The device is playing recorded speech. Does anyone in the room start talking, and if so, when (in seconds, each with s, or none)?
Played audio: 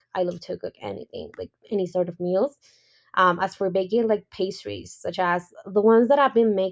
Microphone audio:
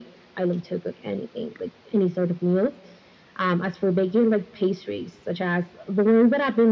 none